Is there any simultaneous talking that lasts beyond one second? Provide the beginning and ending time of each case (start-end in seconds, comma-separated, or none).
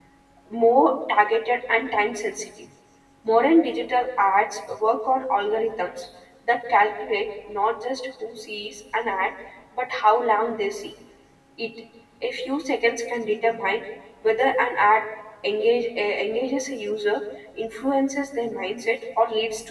none